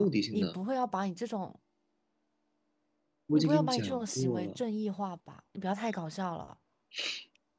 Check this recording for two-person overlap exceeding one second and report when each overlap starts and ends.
3.3-4.6

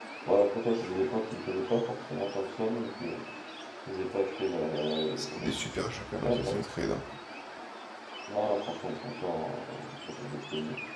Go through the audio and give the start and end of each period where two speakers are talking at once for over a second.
none

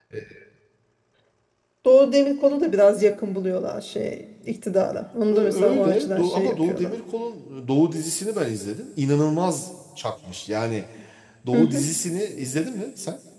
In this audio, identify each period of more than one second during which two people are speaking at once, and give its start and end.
5.3-6.9

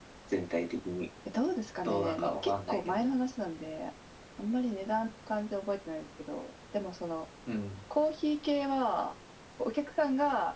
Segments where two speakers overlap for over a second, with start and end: 1.8-3.1

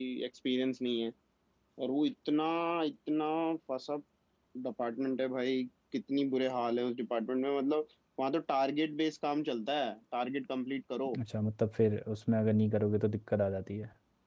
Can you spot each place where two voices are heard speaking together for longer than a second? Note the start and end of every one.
none

